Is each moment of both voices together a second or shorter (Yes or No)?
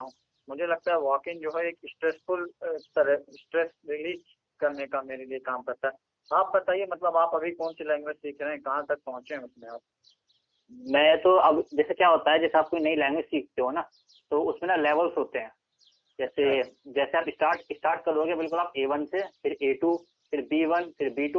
Yes